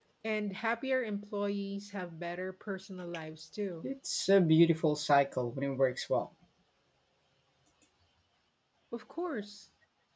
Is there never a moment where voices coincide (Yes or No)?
Yes